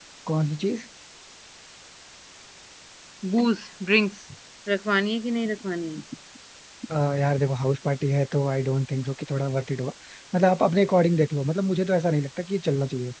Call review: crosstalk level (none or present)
none